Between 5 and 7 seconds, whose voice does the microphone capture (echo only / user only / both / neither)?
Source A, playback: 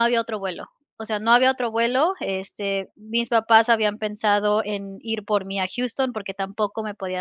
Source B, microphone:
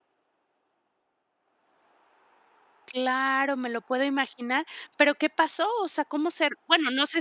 user only